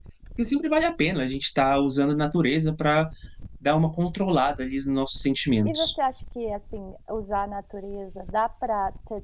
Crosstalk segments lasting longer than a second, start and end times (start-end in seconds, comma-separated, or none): none